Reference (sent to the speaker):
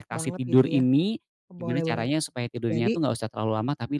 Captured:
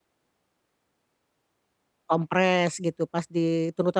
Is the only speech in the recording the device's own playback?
No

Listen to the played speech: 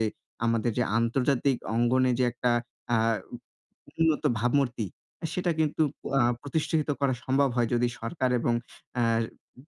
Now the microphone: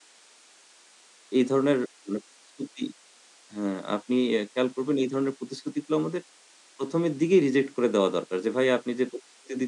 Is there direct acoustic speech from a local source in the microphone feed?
Yes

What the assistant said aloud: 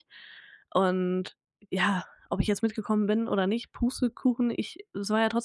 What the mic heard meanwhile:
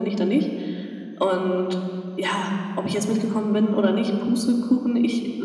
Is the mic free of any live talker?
Yes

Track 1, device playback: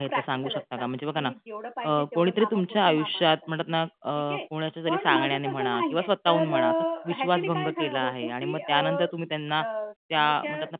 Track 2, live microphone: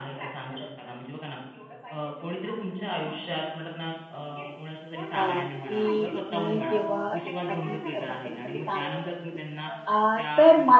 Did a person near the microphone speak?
Yes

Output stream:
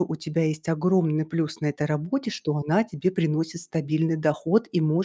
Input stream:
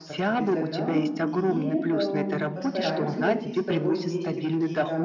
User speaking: Yes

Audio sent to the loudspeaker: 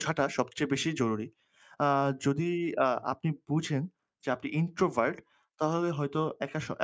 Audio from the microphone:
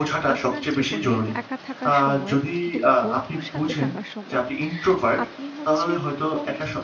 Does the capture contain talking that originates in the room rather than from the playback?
Yes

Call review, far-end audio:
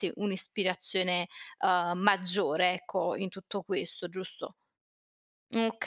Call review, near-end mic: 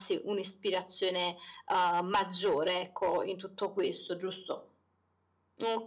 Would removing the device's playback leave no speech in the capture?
Yes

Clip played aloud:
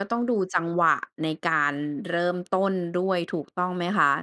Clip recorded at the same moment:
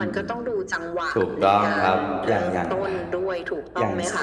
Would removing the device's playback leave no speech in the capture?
No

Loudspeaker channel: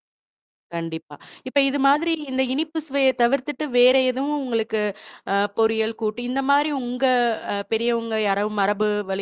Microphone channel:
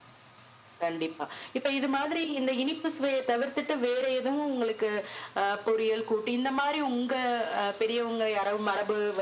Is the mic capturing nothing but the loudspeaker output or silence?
Yes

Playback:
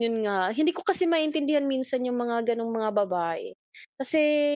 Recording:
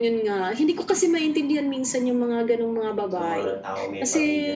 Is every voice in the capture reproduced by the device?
No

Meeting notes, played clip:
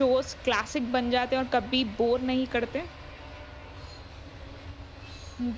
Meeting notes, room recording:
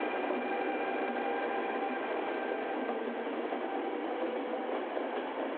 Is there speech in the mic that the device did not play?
No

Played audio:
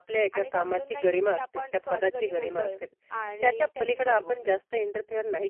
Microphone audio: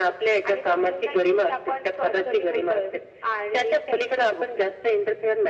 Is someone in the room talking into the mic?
No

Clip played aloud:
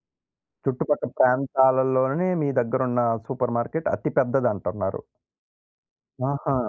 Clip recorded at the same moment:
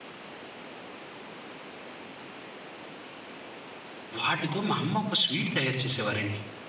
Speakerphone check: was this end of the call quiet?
No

